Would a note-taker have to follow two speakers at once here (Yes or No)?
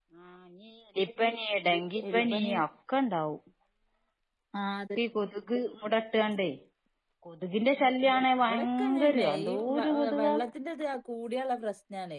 Yes